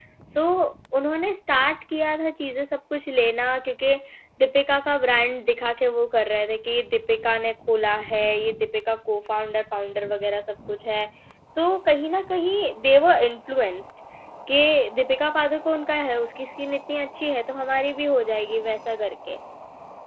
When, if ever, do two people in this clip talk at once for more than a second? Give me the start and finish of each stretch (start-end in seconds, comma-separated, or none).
none